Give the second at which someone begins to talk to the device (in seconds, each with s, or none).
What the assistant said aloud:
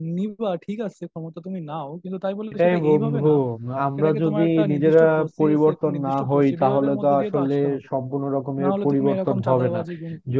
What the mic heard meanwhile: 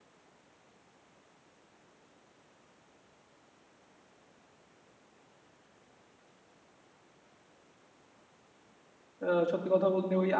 9.3 s